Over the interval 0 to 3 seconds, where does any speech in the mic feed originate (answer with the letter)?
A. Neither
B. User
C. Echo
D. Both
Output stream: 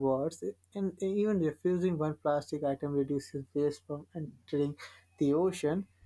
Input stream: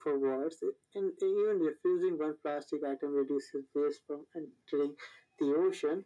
C